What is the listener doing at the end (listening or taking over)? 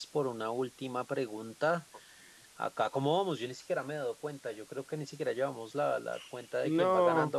listening